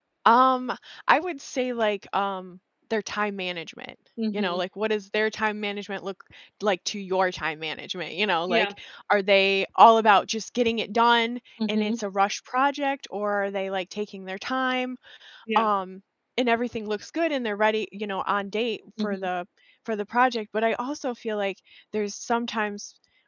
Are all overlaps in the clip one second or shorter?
Yes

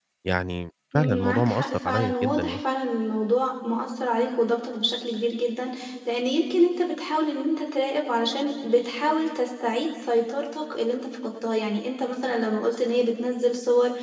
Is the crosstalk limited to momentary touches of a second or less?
No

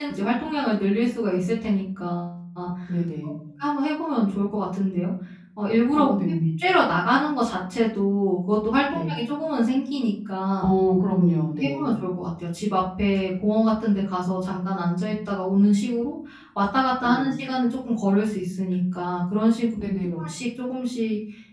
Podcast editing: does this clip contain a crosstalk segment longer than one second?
No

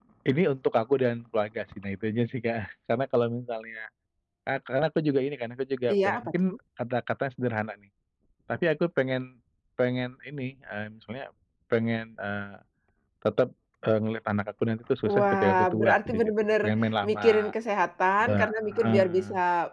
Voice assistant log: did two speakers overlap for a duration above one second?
Yes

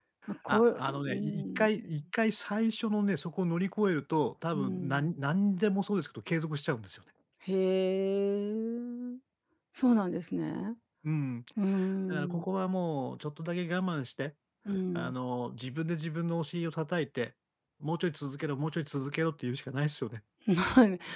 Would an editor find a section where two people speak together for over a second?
Yes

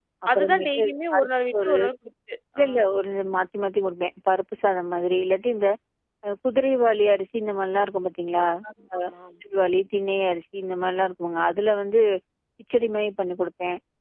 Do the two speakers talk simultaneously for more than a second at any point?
Yes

